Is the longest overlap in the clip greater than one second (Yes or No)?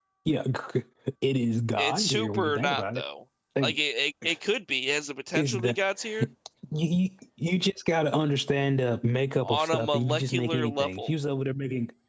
Yes